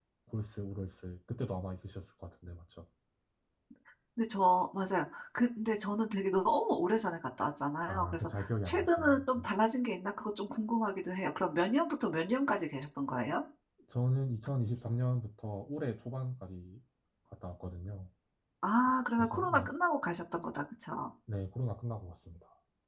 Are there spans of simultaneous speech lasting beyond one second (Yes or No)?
Yes